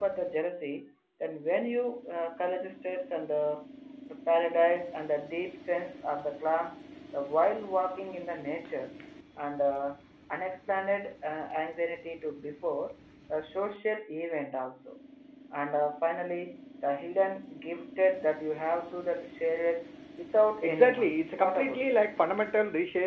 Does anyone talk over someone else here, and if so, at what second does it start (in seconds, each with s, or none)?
20.6 s